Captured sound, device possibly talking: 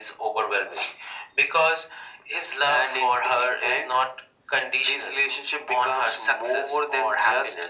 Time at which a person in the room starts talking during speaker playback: none

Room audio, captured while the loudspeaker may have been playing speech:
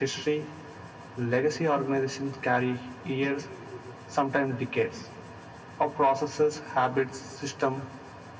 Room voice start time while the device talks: none

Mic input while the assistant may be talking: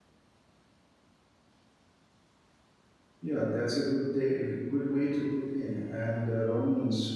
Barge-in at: 3.2 s

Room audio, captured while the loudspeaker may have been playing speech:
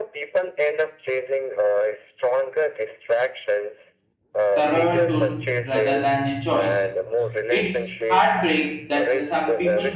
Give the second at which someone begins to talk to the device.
4.5 s

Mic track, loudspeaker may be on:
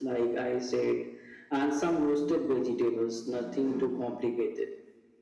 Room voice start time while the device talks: none

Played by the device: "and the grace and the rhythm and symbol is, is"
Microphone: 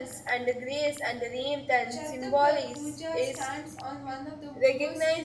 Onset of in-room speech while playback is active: 1.9 s

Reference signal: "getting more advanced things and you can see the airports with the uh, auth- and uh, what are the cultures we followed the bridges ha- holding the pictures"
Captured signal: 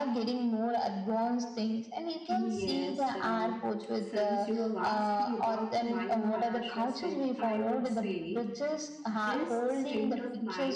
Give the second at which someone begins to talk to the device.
2.3 s

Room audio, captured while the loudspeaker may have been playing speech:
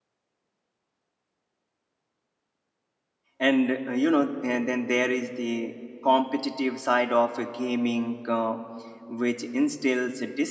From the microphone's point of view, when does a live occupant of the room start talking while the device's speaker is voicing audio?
3.4 s

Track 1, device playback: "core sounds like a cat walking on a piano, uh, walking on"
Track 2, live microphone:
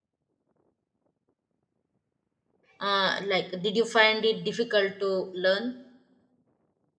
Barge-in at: 2.8 s

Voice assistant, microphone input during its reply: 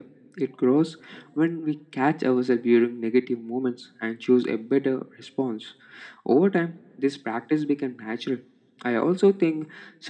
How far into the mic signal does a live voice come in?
none

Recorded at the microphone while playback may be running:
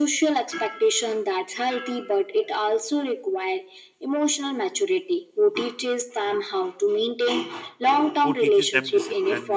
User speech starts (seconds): 8.2 s

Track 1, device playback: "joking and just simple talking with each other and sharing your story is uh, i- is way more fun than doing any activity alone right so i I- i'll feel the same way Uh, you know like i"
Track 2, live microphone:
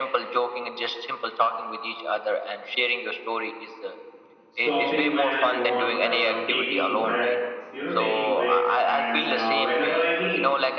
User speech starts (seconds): 4.5 s

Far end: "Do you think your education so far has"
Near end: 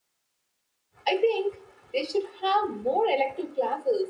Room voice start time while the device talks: 1.1 s

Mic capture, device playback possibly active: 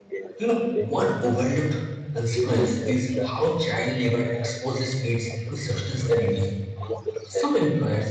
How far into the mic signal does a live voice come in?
0.4 s

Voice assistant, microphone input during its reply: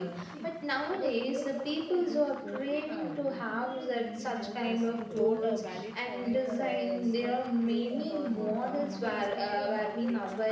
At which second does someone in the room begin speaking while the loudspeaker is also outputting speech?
4.2 s

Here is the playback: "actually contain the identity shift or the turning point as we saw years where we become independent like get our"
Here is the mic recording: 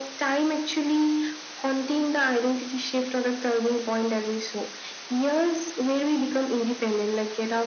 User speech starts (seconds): none

